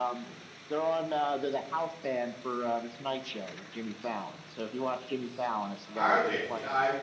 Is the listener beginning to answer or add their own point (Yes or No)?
Yes